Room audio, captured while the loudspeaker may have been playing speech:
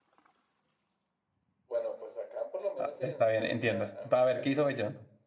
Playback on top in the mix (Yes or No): No